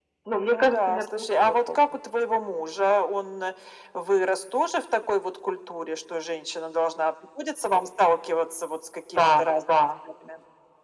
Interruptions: present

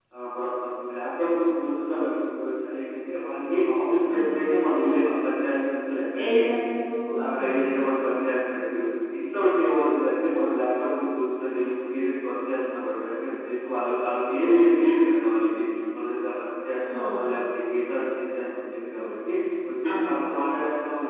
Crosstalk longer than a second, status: none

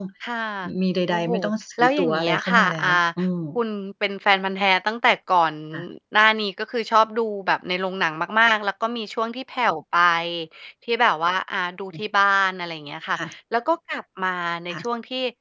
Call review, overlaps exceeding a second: present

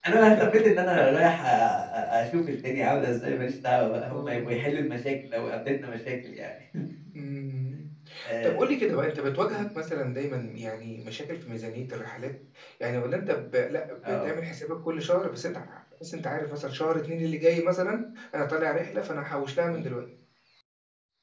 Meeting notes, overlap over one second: none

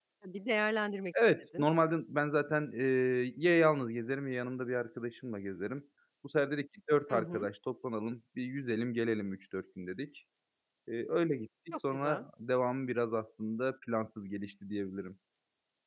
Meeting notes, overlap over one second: none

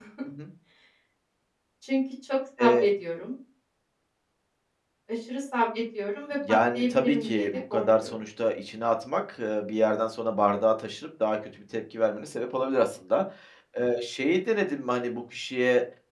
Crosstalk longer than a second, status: present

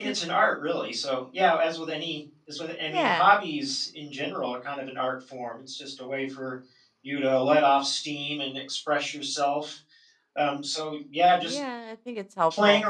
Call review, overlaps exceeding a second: none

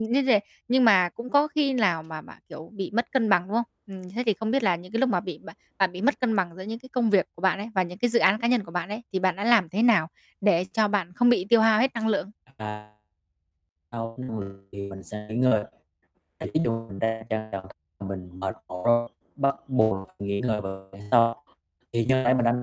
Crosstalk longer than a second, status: none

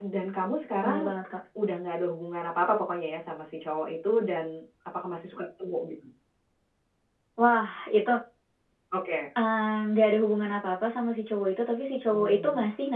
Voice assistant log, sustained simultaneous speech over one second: none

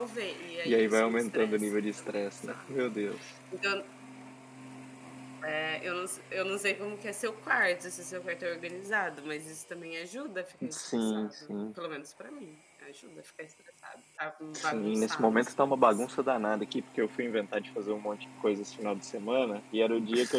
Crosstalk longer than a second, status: present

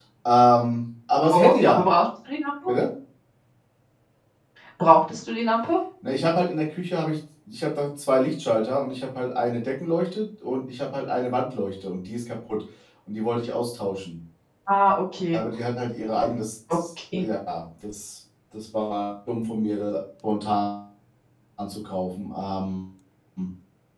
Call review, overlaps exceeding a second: none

